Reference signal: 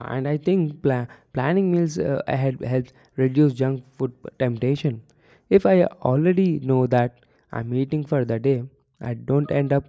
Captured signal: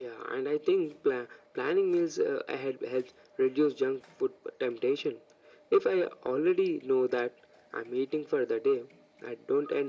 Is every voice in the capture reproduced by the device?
Yes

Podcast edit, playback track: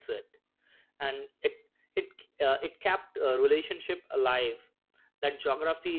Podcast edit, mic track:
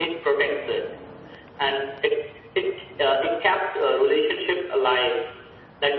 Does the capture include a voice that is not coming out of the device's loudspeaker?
No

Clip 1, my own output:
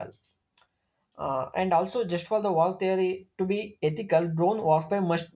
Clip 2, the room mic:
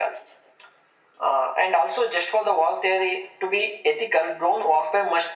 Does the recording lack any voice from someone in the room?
Yes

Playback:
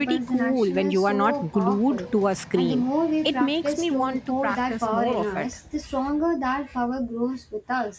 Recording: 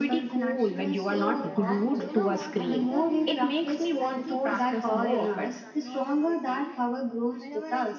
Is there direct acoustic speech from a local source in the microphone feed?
Yes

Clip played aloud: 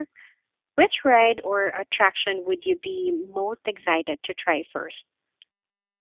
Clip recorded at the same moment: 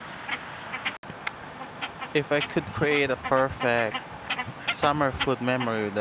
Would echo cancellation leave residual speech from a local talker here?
Yes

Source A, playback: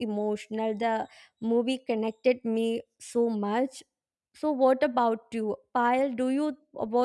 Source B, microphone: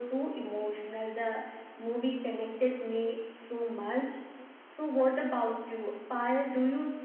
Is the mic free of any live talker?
Yes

